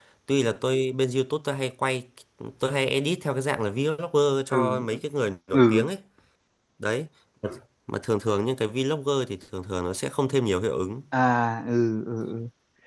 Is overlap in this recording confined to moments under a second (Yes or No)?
Yes